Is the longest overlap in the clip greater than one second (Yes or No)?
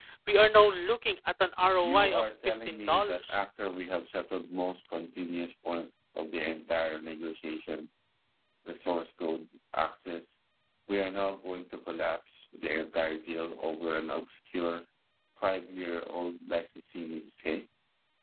Yes